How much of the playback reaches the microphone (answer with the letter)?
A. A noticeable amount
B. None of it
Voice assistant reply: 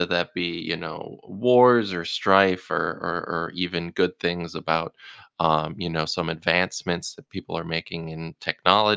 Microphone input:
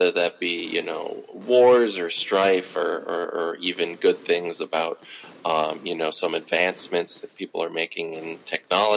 A